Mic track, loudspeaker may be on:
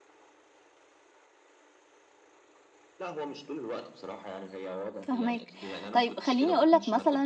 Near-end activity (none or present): present